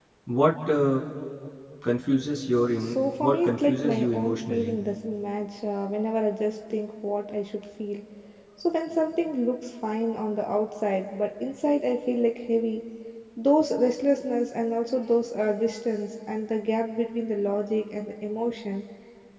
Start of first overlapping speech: 2.8 s

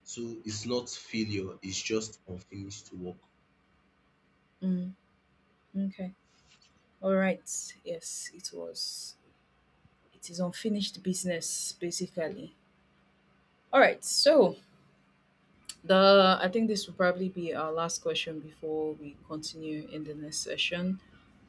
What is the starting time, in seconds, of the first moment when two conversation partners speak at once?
none

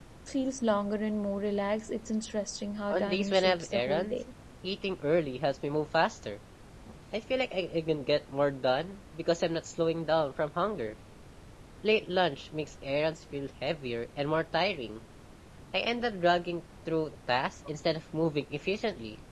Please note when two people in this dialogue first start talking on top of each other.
2.9 s

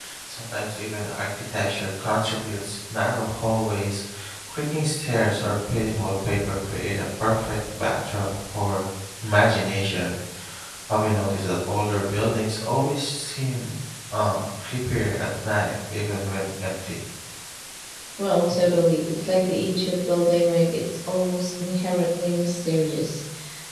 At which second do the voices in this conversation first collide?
none

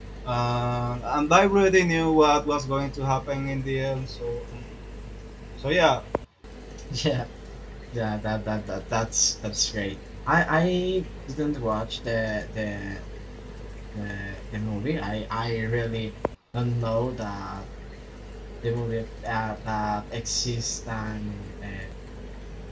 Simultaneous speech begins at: none

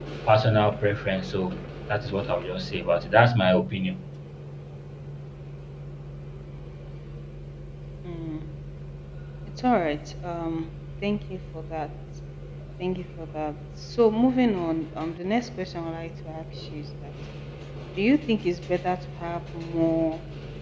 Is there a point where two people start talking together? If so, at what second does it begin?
none

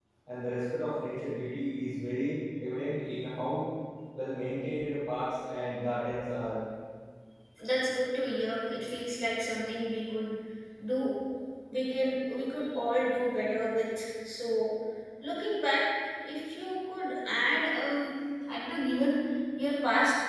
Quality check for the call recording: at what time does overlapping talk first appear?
none

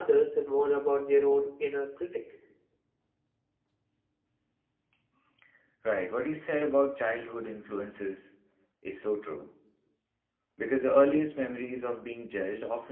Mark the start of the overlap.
none

